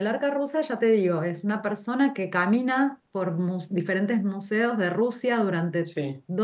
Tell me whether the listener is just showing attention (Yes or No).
Yes